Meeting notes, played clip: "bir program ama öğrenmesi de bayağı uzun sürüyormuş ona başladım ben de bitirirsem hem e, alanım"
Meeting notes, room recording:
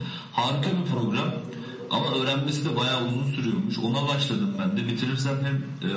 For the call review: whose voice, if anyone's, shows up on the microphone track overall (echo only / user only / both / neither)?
both